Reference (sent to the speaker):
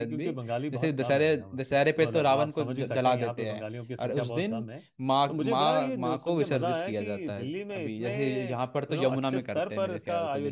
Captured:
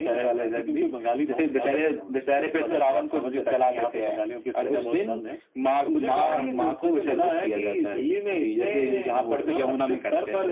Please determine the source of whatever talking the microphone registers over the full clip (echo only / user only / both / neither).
both